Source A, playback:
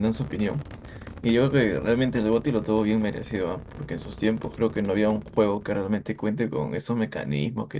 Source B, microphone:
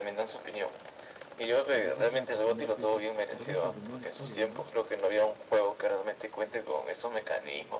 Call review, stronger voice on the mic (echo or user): echo